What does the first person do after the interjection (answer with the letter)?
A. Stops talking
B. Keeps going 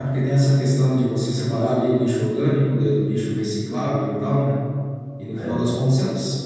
B